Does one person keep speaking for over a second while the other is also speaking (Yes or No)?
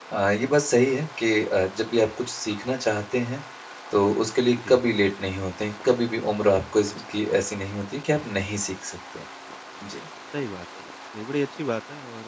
No